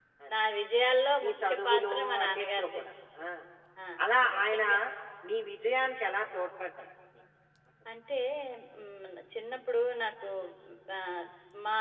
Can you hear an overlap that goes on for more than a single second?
Yes, from 1.2 s

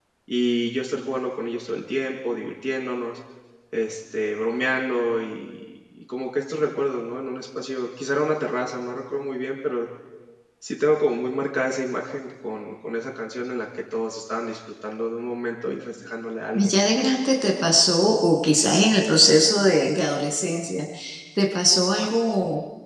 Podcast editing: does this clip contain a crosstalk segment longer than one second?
No

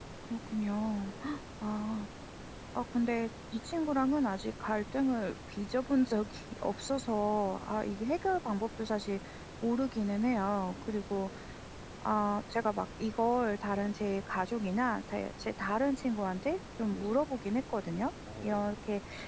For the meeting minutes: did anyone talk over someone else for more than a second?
No

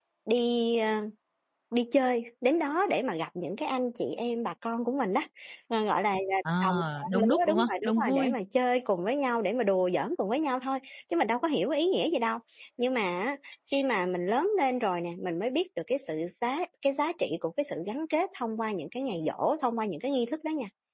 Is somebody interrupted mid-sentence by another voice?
Yes, from 6.5 s

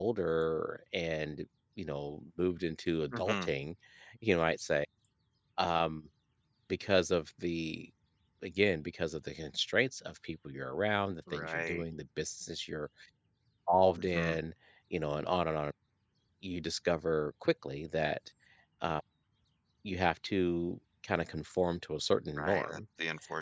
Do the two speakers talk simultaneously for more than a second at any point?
No

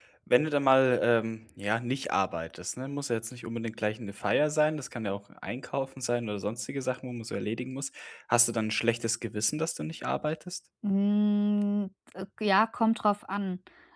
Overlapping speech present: No

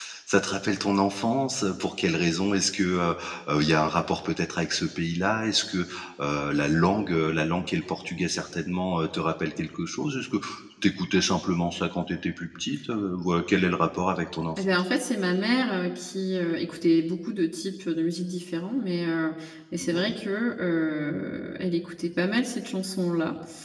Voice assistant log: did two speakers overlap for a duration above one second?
No

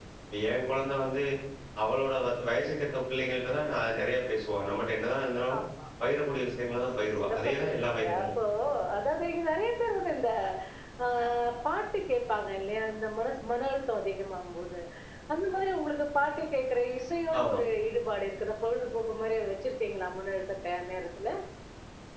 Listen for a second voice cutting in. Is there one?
Yes, from 7.0 s

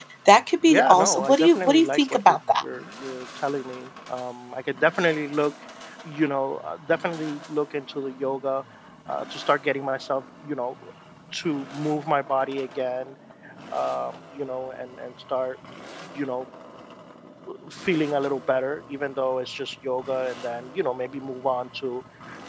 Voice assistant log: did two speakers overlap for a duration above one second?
Yes, from 0.7 s

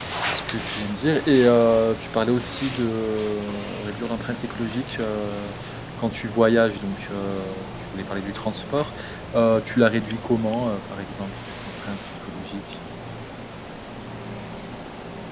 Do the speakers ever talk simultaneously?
No

